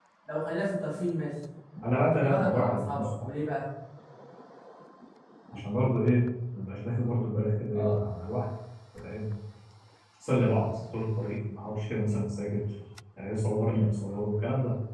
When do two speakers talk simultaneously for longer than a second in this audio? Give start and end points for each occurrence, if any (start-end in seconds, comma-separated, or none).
2.0-3.3